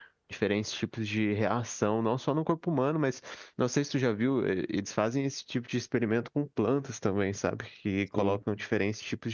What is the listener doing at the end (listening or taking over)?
listening